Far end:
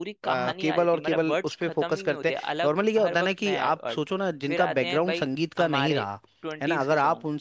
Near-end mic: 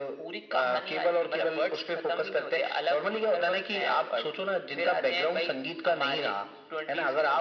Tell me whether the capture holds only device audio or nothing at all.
Yes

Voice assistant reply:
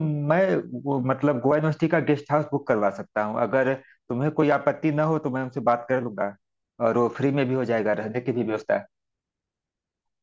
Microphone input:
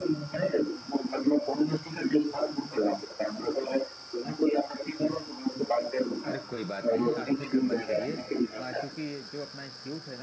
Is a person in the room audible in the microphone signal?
Yes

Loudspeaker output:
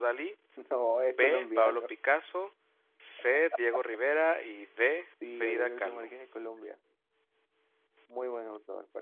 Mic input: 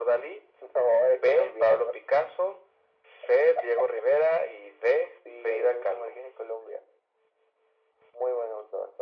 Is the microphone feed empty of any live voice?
Yes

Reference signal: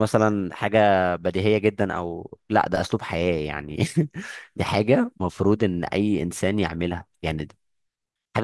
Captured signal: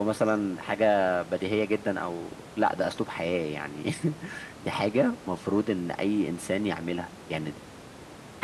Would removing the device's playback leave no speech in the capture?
Yes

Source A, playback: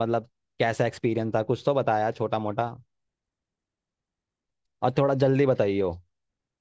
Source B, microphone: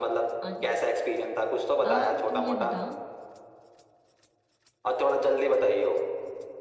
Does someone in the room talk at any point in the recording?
Yes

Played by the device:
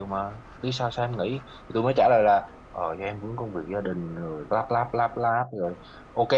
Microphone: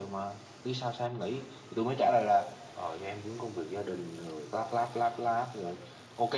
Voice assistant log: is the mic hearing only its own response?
Yes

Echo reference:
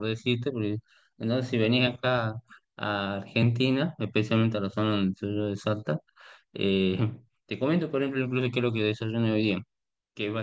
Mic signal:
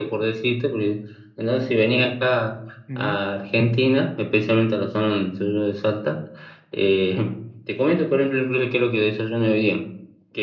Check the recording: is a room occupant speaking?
Yes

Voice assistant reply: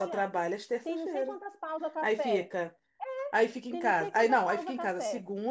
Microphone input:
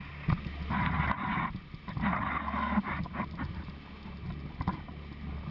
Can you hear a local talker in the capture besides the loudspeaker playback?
No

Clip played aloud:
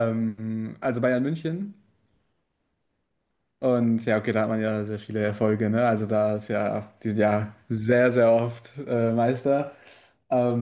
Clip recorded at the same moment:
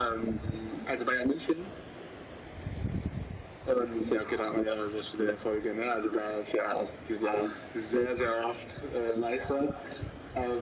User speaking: No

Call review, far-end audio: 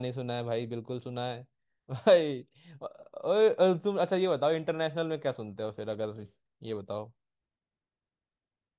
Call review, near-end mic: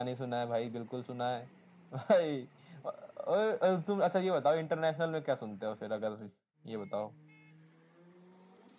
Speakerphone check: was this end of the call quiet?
Yes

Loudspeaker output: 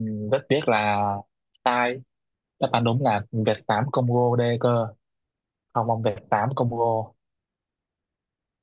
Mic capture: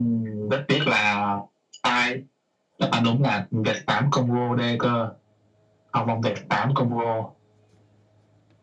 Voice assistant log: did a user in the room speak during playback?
No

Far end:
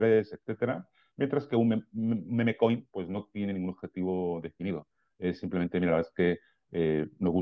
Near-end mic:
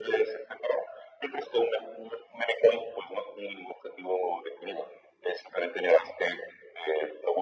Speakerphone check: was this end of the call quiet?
Yes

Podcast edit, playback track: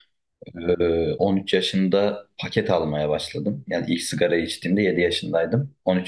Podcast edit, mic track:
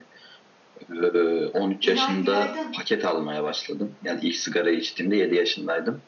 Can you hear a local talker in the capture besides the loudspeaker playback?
Yes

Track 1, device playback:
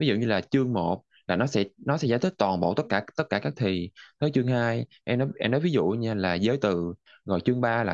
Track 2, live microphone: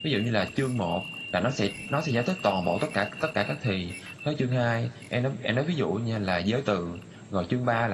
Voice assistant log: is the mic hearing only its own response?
Yes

